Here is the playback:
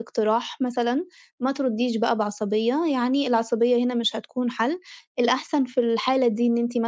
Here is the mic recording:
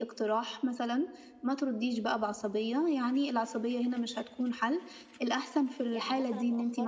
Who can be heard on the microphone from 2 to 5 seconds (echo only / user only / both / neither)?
echo only